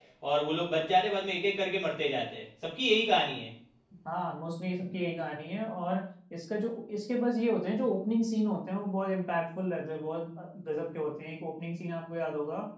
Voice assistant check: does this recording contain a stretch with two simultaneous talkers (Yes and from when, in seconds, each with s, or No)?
No